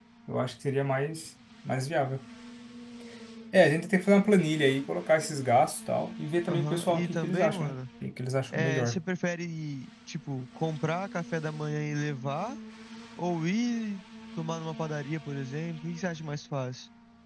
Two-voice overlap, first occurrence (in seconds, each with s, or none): 6.5 s